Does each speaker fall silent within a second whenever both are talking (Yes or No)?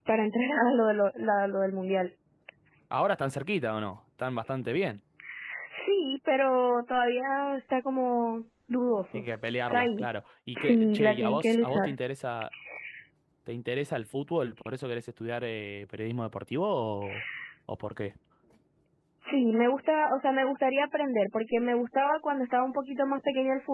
No